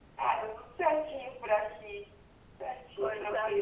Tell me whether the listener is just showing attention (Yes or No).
No